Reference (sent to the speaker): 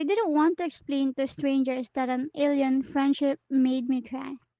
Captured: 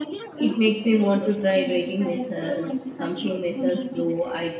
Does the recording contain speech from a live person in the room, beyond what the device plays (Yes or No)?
Yes